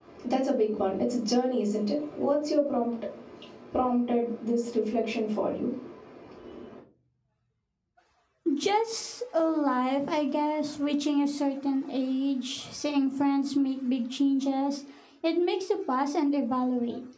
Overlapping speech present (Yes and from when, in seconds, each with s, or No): No